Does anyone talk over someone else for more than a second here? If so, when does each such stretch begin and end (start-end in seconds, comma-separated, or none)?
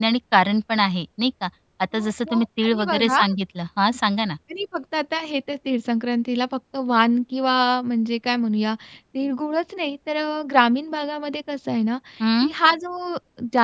1.9-3.2